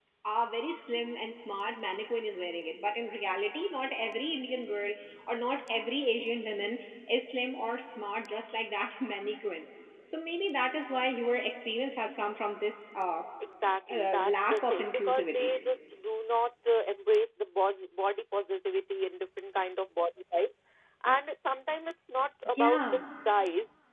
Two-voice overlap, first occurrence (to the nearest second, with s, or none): 14 s